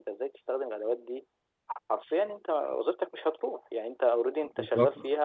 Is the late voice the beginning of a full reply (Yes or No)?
No